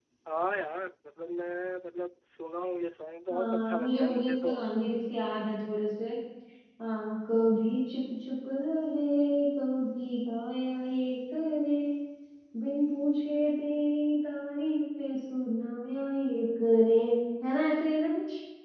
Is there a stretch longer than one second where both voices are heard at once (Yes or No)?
Yes